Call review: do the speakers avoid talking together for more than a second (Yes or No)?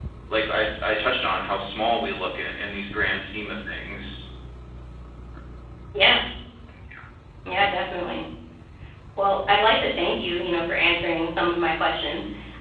Yes